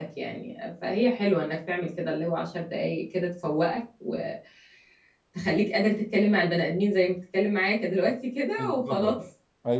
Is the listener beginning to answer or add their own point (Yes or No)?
Yes